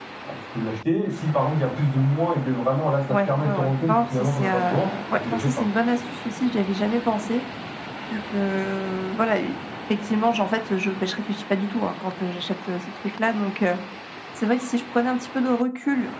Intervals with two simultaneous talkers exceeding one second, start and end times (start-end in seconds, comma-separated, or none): 3.1-5.5